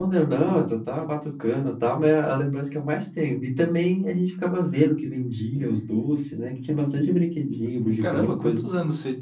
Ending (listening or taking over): taking over